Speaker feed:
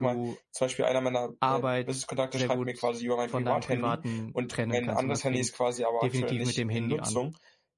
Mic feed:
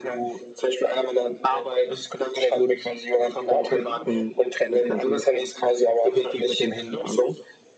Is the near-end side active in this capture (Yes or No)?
No